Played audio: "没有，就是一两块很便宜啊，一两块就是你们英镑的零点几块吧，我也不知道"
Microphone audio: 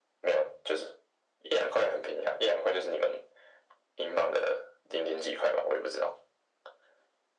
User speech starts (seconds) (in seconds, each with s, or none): none